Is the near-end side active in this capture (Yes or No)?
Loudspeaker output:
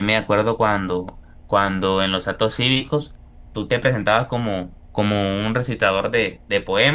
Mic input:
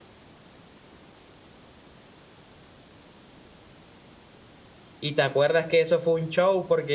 Yes